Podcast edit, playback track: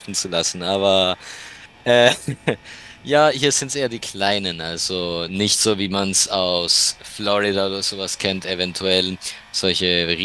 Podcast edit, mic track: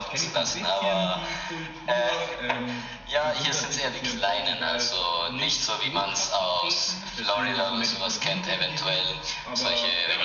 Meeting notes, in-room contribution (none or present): present